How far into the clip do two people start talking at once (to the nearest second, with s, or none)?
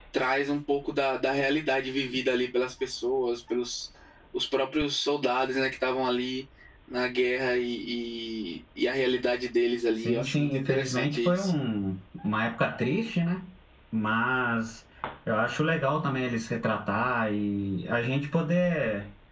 10 s